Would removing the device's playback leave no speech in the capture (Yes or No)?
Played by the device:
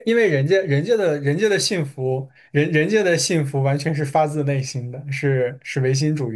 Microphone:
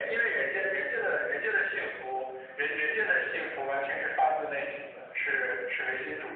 Yes